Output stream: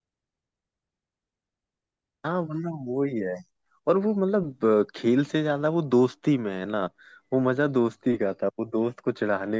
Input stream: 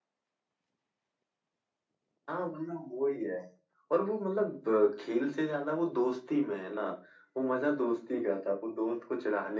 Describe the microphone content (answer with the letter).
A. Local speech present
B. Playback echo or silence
B